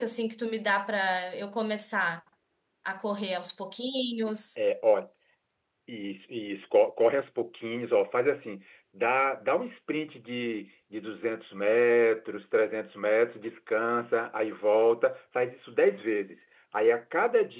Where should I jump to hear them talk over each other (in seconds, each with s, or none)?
none